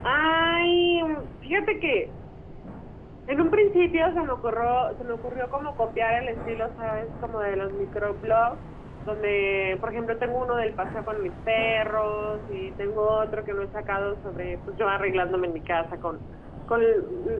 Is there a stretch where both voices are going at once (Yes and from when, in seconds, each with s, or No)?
No